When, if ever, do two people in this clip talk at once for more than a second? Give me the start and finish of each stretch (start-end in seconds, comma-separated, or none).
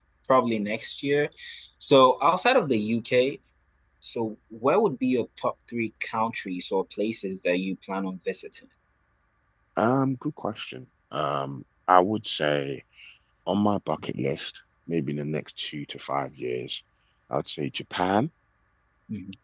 none